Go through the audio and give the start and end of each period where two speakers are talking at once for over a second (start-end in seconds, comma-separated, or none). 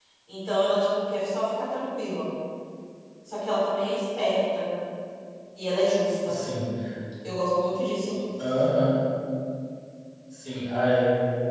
none